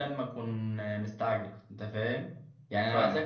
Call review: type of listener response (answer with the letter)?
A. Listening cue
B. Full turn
A